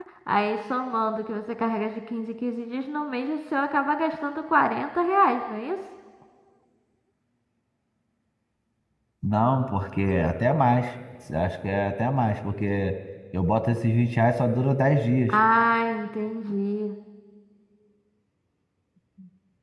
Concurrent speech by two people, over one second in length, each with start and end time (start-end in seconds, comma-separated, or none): none